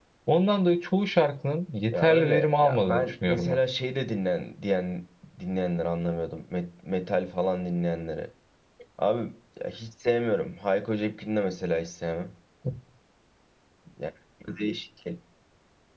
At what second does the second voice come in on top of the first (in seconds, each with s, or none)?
1.9 s